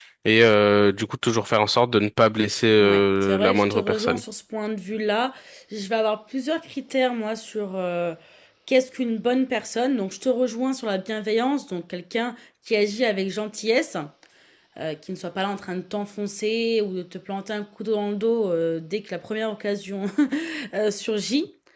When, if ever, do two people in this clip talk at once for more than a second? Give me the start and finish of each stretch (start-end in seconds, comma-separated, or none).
2.8-4.2